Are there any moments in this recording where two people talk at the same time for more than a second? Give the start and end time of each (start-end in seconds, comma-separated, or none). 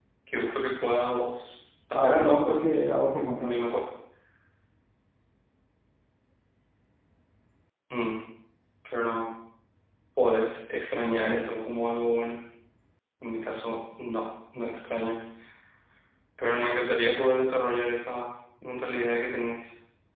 1.9-3.5